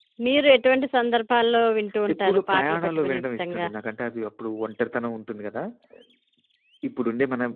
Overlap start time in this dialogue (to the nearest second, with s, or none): 2 s